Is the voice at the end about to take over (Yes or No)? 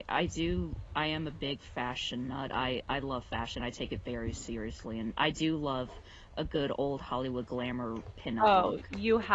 Yes